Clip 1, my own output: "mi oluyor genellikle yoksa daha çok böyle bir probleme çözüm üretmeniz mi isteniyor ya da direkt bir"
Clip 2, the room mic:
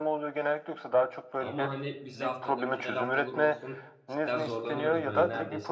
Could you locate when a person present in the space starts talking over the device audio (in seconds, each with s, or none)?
1.4 s